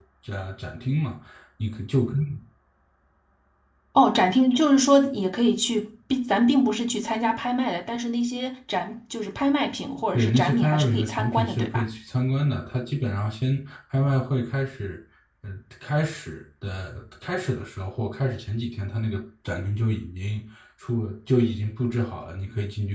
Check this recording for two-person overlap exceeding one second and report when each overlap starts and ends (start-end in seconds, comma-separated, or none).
10.1-11.9